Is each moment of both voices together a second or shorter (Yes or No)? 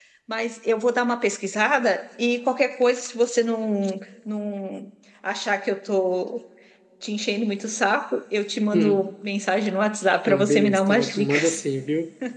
No